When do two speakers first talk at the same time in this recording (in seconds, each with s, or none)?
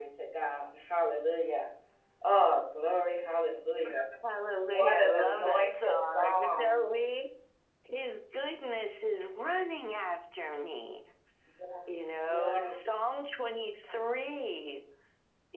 4.7 s